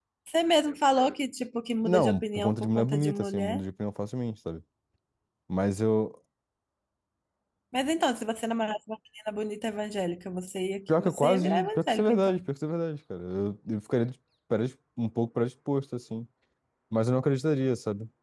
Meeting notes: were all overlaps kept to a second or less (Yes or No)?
No